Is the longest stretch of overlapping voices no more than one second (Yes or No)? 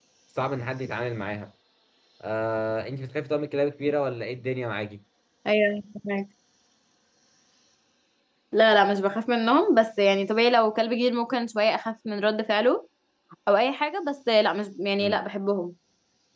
Yes